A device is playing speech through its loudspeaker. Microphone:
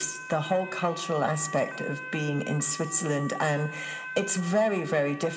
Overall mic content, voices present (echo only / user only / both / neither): echo only